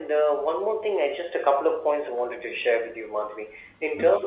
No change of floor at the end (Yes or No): Yes